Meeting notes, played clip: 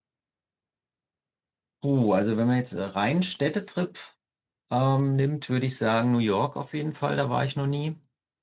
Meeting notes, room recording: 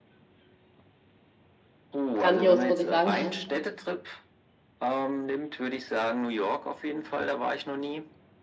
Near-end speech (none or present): present